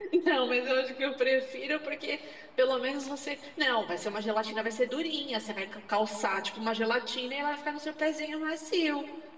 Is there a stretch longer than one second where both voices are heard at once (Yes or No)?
No